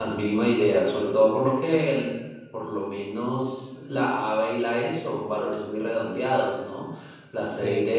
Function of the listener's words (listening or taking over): listening